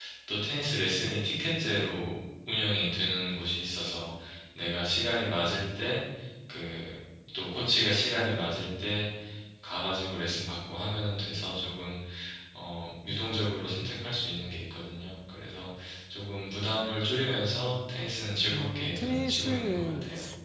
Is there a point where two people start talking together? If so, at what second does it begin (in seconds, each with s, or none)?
18.5 s